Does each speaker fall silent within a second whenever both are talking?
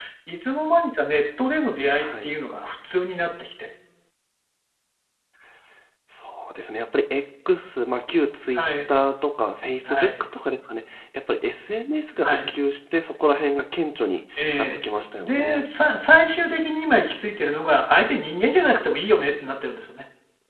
Yes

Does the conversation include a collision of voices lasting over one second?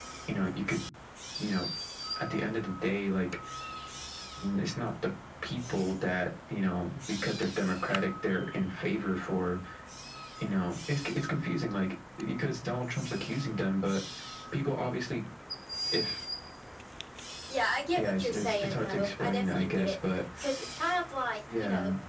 Yes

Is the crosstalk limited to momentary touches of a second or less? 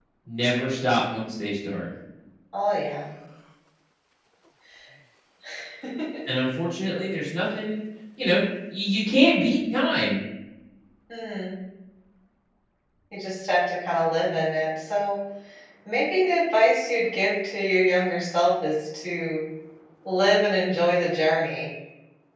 Yes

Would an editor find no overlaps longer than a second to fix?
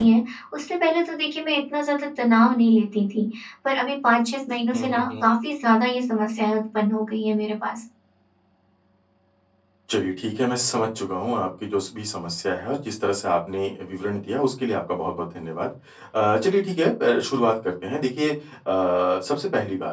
Yes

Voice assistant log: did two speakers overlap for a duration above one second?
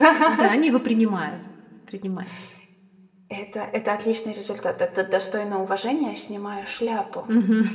No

